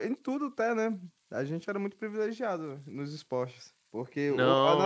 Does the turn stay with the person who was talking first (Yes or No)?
Yes